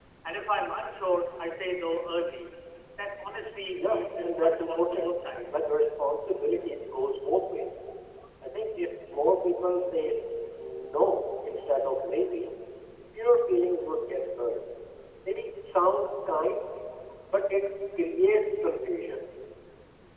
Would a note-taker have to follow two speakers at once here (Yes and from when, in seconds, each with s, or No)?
Yes, from 3.8 s